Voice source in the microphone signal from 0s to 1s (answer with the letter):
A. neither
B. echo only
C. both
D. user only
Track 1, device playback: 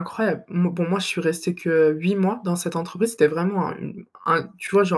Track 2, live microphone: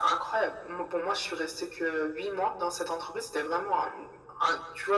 B